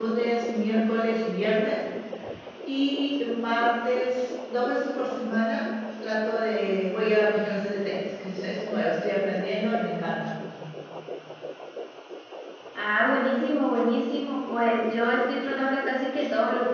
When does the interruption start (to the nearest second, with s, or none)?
none